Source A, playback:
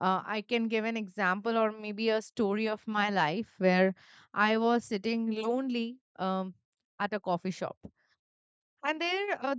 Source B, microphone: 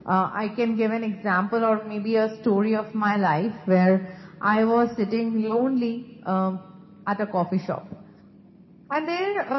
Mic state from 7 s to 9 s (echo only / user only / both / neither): echo only